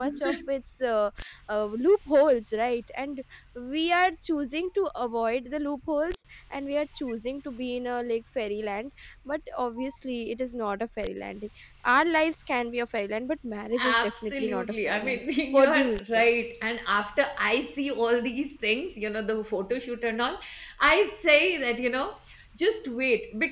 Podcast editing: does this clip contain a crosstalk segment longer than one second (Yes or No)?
Yes